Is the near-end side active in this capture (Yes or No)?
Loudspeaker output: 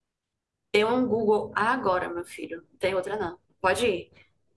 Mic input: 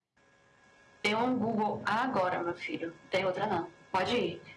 No